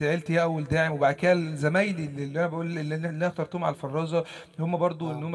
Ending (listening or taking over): listening